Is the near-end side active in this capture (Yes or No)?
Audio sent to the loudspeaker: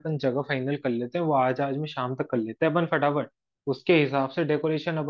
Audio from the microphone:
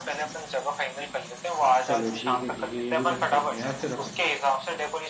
Yes